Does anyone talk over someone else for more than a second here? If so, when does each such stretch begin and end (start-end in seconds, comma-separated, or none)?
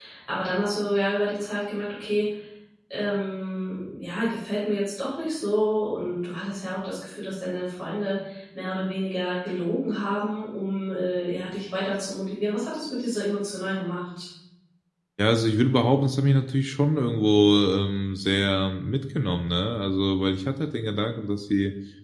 none